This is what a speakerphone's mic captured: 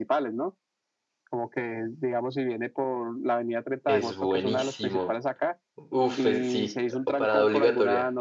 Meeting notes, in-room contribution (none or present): present